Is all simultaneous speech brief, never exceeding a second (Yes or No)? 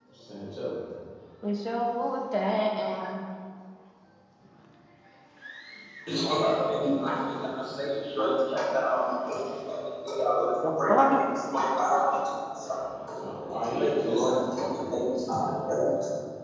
No